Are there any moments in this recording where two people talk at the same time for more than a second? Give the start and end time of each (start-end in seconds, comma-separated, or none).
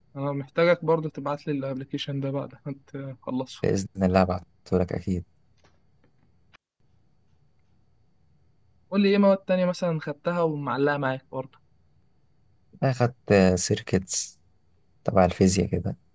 none